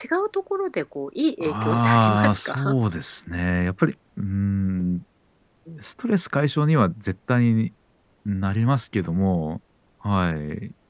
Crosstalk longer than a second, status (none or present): present